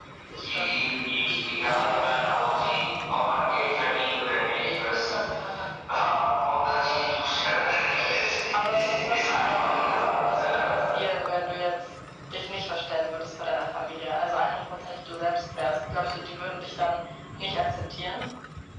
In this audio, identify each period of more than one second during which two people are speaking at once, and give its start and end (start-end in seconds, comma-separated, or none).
8.5-10.8